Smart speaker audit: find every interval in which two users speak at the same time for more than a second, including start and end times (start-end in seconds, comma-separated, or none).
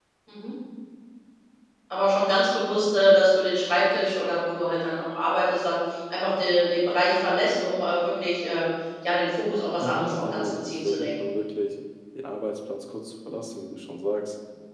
9.8-11.2